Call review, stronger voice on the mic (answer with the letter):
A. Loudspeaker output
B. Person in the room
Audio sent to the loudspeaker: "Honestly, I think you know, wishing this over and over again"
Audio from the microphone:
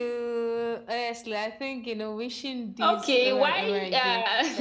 B